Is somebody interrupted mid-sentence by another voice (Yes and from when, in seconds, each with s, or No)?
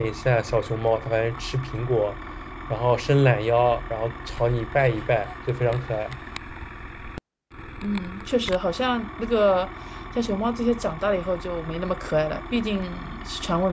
No